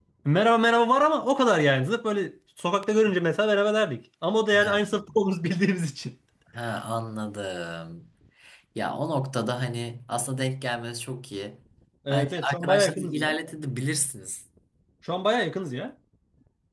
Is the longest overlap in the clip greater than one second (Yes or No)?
Yes